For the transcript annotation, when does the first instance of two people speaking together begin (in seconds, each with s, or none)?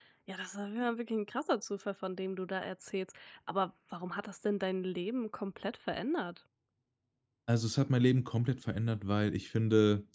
none